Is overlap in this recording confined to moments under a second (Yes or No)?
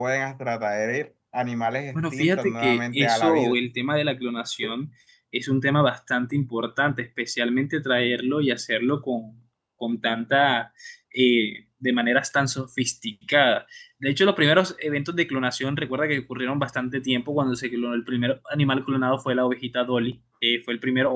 No